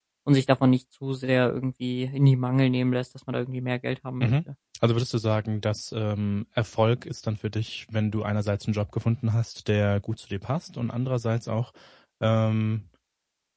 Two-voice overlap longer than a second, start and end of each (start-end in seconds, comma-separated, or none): none